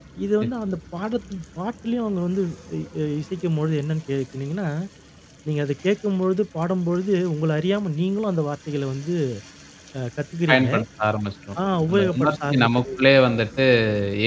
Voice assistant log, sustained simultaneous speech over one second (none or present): present